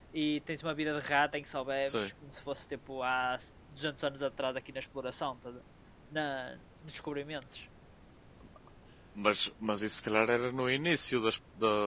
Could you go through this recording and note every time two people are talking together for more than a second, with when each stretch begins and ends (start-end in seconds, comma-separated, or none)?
none